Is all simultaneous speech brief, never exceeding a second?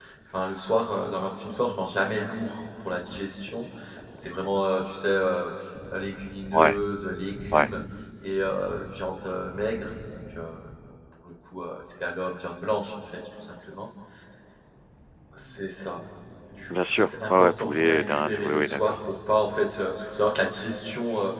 No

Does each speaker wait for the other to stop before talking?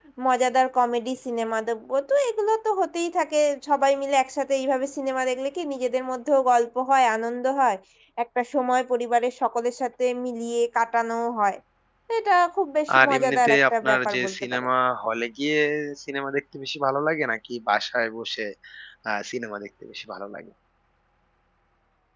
No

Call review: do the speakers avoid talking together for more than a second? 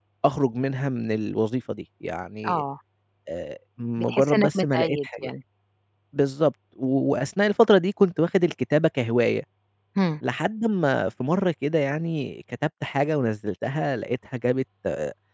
No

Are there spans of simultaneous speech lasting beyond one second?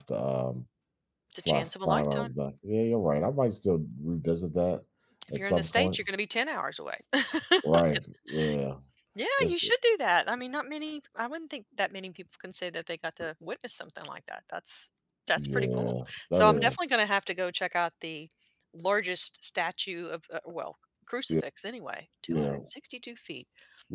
Yes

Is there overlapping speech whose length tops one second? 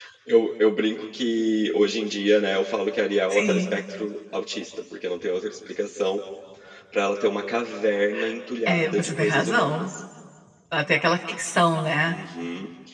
Yes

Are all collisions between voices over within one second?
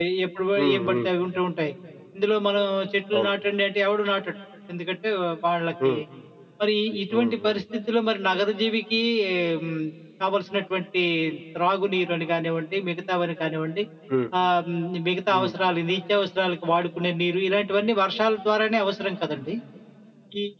Yes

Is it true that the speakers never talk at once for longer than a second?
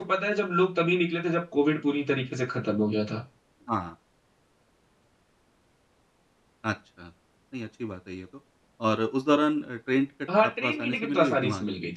No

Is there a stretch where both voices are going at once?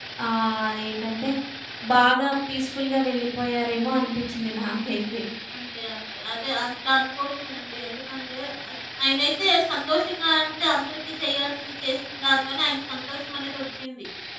No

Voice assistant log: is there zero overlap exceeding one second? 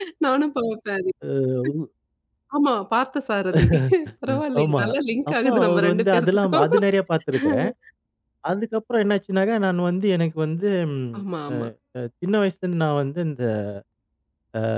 No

